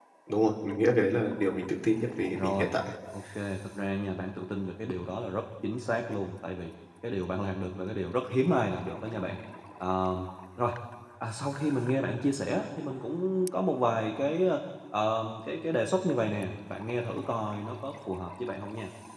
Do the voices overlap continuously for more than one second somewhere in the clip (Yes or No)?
No